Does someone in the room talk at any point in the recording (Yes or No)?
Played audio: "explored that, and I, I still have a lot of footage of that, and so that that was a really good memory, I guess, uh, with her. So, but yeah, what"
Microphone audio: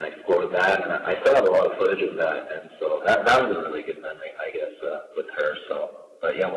No